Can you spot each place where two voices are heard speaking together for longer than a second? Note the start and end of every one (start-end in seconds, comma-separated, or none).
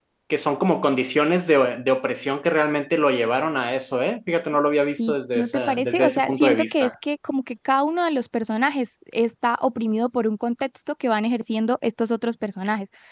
5.0-6.9